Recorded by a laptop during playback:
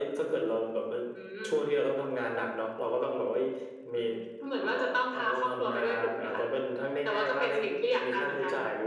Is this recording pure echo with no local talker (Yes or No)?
Yes